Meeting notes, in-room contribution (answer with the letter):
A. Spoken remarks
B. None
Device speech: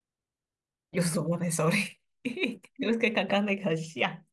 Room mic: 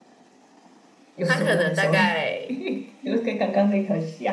A